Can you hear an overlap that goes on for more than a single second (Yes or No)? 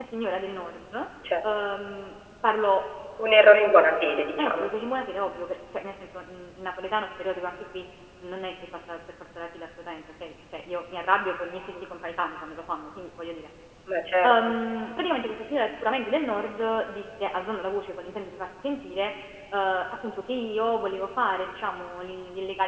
No